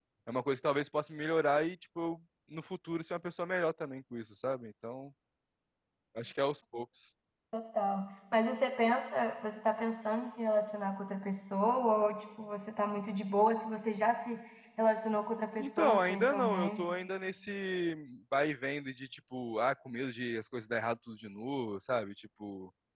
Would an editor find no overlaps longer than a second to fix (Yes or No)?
No